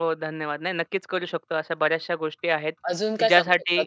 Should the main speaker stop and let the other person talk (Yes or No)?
Yes